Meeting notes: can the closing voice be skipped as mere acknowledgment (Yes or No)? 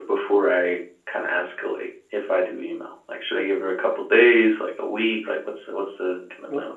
No